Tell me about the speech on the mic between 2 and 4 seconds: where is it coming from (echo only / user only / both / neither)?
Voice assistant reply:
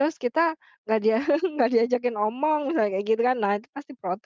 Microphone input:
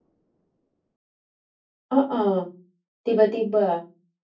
user only